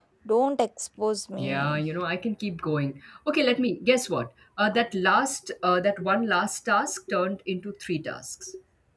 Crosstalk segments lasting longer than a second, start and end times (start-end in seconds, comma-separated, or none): none